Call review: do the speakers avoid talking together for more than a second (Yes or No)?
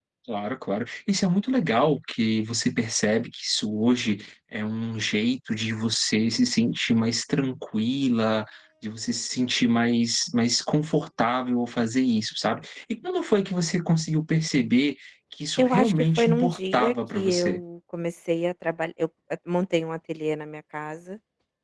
No